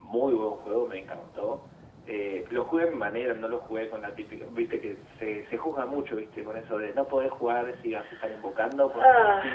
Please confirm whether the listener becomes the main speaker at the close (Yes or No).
No